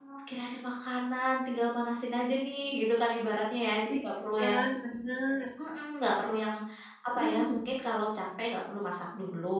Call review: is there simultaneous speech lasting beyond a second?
No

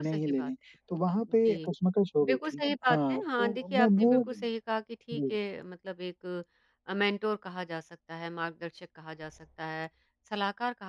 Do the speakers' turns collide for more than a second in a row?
Yes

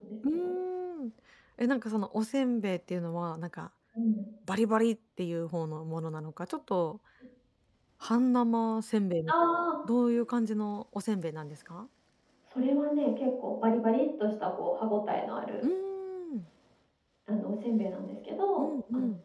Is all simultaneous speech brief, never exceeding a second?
Yes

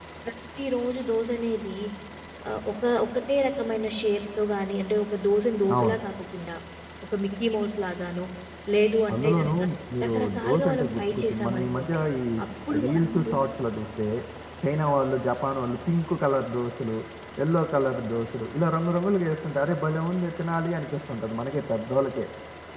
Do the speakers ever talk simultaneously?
Yes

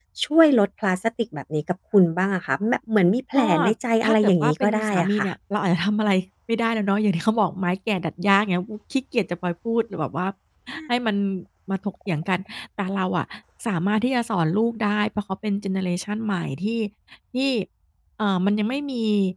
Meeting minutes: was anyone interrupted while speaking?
Yes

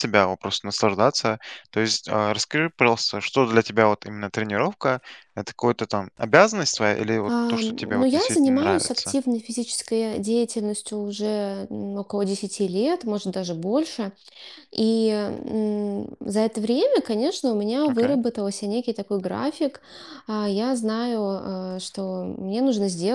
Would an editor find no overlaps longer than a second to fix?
No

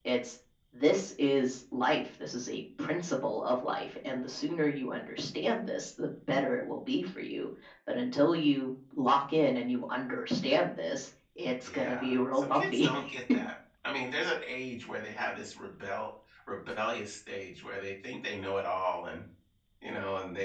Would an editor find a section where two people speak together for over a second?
Yes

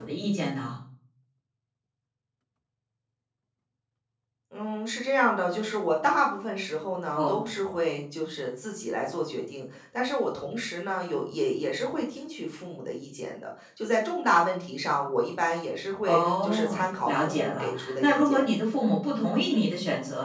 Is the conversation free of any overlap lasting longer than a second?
No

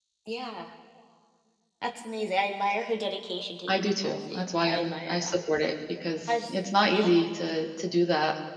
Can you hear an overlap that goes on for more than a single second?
Yes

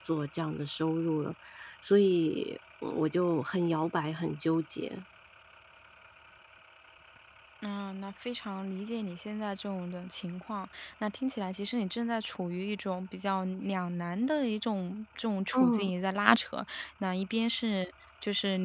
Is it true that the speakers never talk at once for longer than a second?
Yes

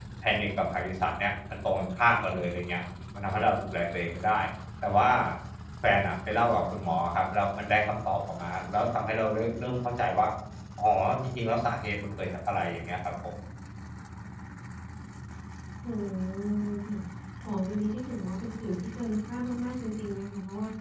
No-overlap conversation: Yes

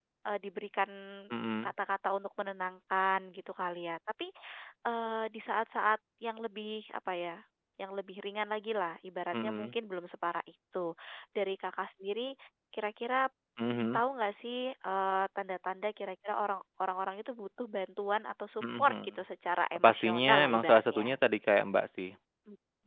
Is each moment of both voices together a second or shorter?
No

